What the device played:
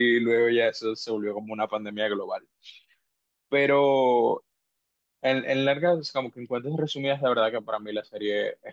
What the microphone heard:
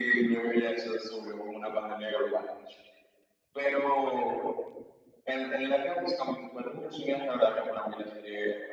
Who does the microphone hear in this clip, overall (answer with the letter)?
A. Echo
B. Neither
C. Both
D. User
A